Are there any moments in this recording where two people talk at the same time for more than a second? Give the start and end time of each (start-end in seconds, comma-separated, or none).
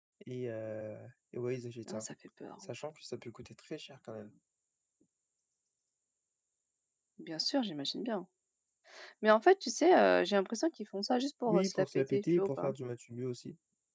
11.5-12.7